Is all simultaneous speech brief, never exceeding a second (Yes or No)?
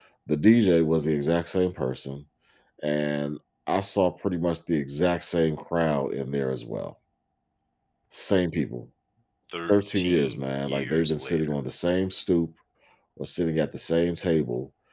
No